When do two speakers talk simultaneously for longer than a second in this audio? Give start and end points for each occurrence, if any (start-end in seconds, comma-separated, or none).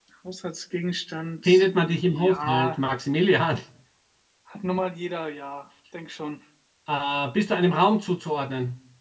1.4-2.8